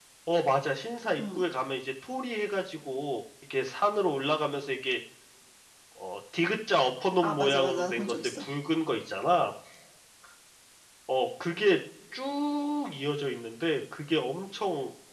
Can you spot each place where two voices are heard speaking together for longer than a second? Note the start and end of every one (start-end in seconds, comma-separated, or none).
7.2-8.5